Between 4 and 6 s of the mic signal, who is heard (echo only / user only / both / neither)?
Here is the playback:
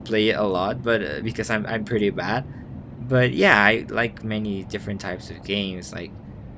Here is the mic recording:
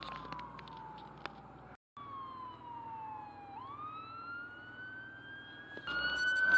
neither